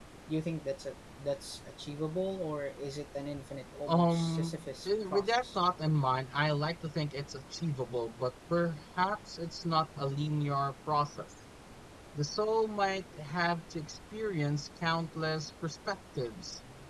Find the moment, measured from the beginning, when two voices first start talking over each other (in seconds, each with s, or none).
3.9 s